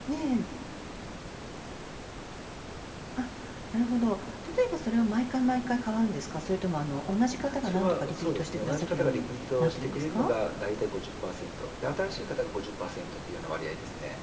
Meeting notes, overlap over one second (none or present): present